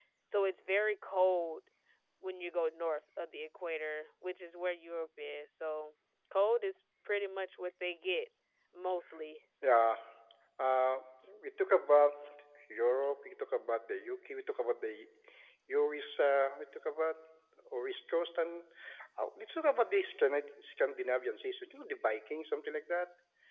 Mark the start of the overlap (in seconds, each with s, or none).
none